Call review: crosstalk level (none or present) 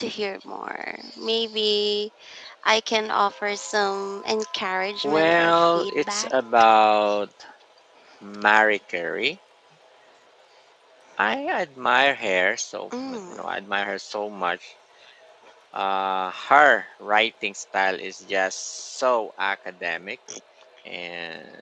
present